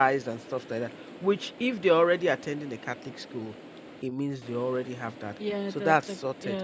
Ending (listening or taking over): taking over